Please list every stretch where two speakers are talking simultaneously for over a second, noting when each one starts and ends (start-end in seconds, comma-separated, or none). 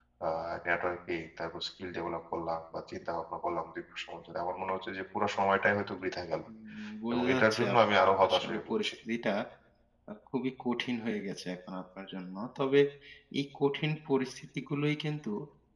7.1-8.9